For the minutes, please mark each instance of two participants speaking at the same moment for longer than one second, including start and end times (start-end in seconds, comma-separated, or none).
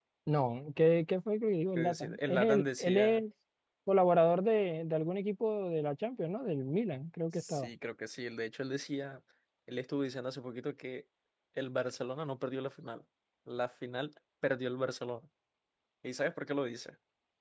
1.7-3.2